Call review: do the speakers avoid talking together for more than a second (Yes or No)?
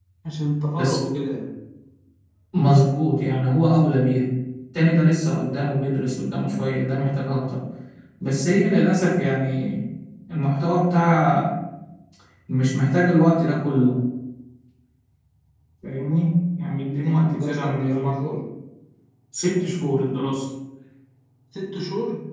No